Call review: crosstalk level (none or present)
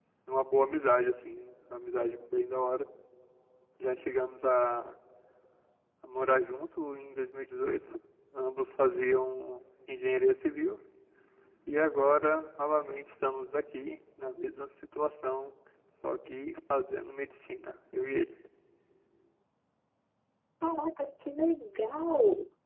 none